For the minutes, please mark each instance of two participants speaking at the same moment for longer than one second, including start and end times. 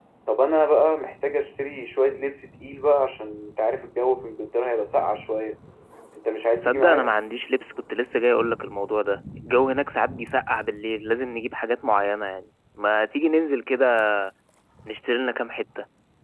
none

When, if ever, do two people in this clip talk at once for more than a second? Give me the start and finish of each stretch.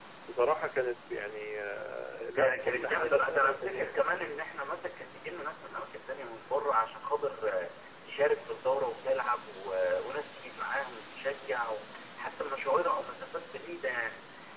2.2-3.6

